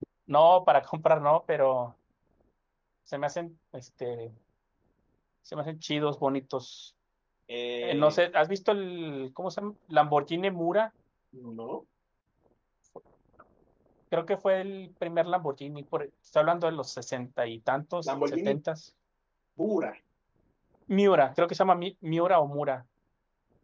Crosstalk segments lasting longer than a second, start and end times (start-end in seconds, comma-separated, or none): none